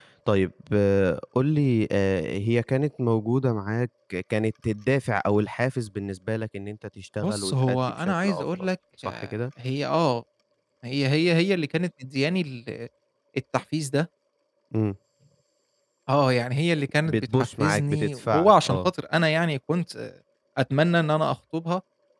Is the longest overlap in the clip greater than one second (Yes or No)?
Yes